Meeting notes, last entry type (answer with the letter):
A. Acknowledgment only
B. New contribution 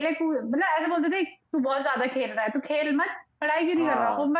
A